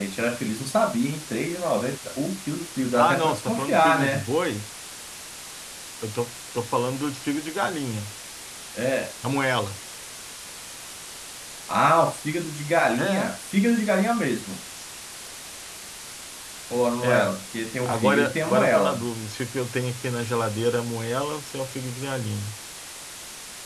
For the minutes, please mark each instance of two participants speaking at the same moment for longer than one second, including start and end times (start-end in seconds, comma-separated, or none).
3.0-4.2, 17.8-19.1